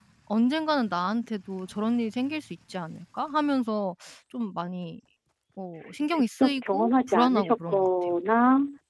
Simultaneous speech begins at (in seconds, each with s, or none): 6.1 s